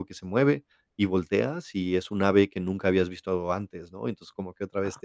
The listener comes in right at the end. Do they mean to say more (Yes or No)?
No